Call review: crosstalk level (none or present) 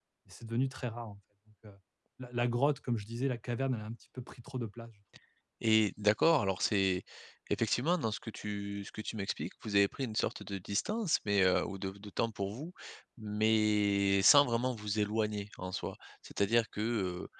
none